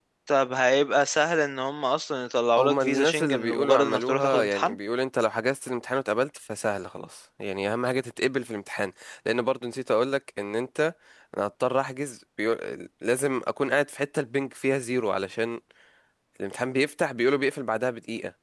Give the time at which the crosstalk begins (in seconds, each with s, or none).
2.6 s